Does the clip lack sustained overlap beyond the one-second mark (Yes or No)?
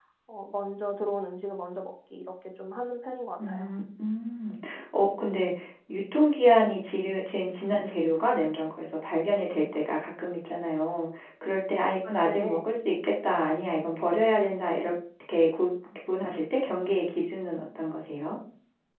Yes